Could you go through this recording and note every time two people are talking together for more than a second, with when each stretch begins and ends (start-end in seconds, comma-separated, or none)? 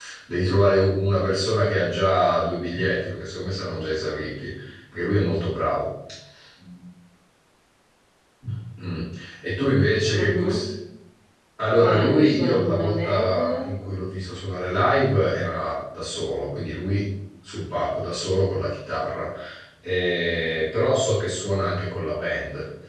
11.8-13.4